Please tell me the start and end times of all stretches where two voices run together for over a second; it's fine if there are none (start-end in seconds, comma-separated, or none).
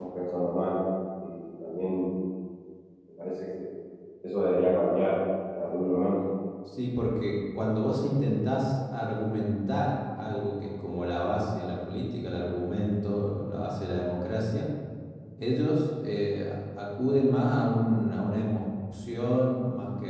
none